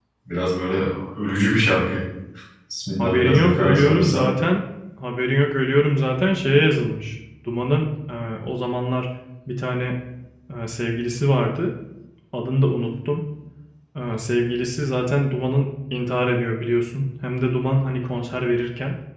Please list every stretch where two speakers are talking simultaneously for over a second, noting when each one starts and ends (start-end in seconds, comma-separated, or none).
3.0-4.3